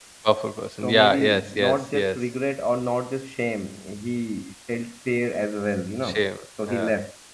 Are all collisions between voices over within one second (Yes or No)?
No